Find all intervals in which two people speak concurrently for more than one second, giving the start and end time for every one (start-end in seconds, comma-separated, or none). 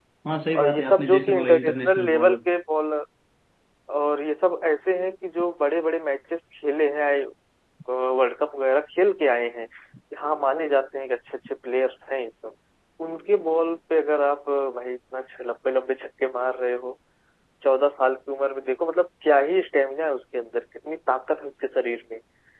0.6-2.4